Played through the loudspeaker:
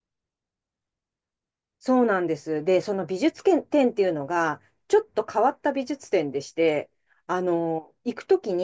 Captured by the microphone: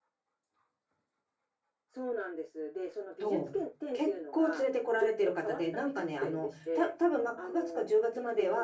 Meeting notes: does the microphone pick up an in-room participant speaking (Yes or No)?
Yes